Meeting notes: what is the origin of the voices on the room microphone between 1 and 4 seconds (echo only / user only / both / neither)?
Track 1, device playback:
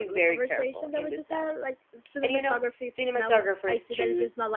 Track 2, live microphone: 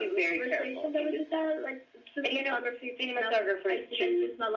echo only